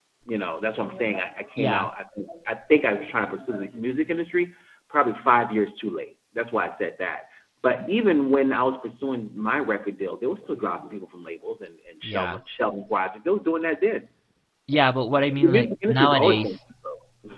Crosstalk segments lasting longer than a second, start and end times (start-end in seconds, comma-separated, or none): 15.3-16.6